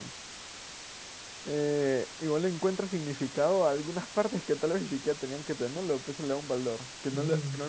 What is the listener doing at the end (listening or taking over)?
listening